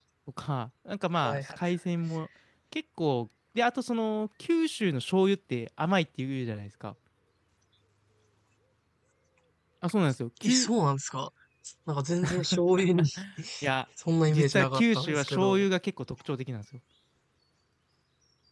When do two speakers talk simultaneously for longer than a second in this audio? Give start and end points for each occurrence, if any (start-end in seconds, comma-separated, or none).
14.3-15.7